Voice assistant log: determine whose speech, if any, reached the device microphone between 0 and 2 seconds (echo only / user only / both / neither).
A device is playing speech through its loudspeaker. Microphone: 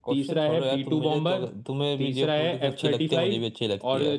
echo only